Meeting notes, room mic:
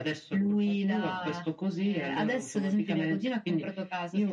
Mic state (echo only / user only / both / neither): echo only